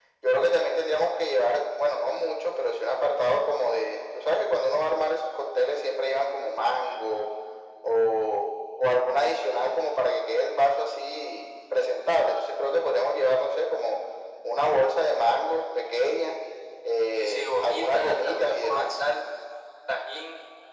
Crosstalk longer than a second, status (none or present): present